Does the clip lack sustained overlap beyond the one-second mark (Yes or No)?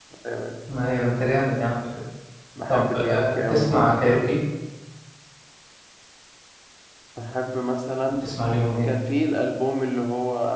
No